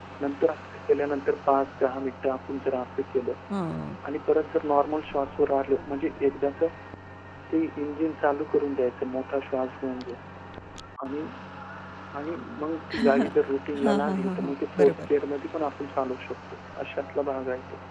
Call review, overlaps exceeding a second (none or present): present